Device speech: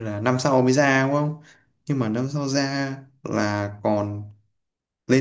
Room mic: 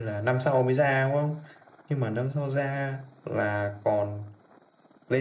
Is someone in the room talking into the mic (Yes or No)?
No